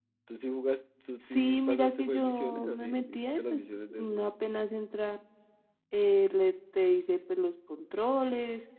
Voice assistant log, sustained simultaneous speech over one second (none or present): present